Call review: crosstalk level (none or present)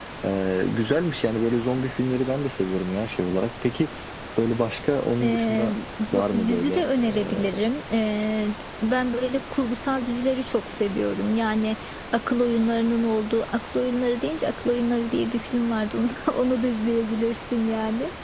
present